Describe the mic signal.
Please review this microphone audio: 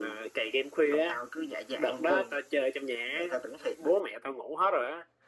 echo only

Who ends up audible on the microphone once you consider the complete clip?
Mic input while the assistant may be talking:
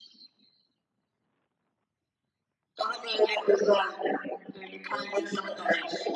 both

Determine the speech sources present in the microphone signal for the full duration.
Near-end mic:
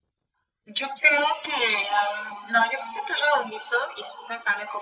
echo only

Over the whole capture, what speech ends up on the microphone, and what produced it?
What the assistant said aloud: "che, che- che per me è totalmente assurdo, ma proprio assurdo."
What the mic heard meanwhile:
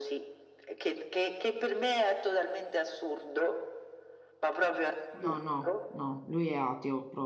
both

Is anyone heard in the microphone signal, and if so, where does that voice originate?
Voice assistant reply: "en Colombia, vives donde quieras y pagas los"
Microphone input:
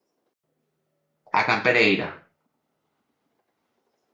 user only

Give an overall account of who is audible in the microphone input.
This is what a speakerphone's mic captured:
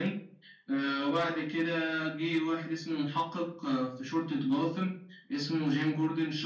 echo only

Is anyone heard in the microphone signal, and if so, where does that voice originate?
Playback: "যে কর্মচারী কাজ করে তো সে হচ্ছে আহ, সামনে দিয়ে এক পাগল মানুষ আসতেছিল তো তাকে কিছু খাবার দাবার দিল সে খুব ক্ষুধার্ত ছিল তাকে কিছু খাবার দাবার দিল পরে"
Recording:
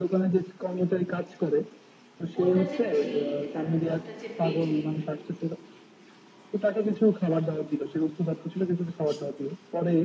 both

